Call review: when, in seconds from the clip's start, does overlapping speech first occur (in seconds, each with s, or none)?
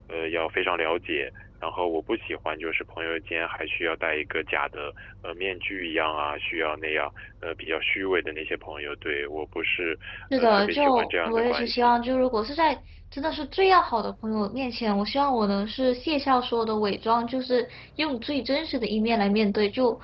10.4 s